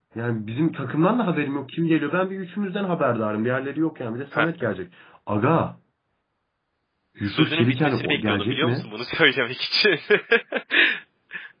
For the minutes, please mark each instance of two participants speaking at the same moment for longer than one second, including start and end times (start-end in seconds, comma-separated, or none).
7.3-8.9